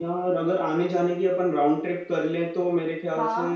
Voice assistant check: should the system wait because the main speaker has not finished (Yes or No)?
Yes